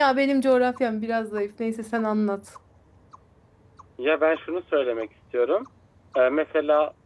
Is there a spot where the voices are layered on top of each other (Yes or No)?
No